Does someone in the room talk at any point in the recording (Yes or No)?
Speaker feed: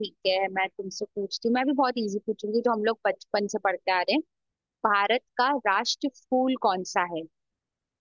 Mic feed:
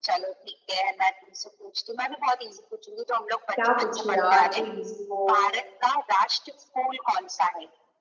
Yes